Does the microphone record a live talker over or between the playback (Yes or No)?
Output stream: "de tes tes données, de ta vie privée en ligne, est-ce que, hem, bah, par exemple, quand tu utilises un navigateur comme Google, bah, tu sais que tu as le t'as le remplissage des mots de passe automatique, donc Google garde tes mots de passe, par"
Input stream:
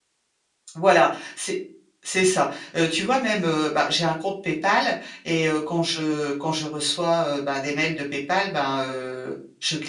Yes